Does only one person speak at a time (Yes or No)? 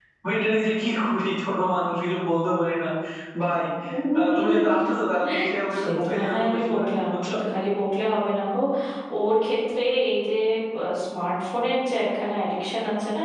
No